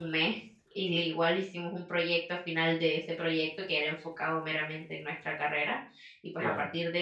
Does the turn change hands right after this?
No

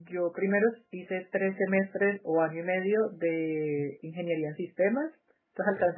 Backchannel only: Yes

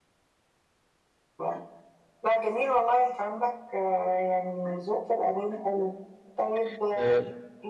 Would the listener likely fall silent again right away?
Yes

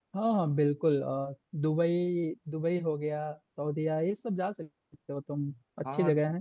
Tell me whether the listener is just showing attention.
No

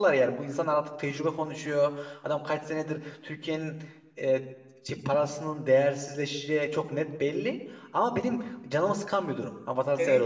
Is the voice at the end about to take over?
Yes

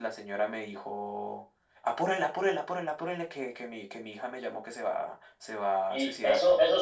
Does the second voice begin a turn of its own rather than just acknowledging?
Yes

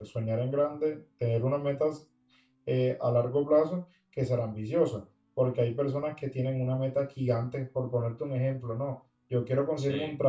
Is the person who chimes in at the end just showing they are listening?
Yes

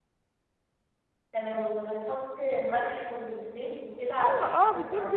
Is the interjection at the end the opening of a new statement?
Yes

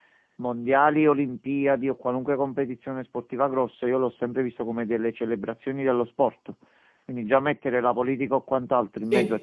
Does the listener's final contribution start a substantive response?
No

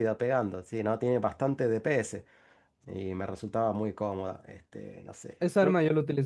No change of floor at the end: No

